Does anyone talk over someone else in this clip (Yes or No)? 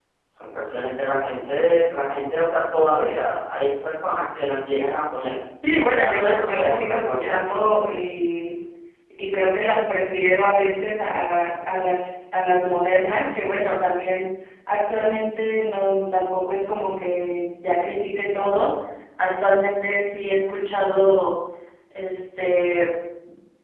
Yes